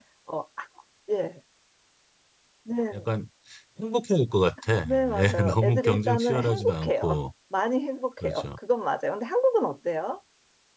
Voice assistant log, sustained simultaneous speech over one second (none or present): present